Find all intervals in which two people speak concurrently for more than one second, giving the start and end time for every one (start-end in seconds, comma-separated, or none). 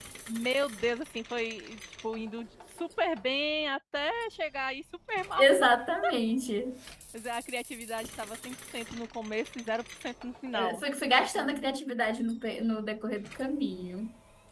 none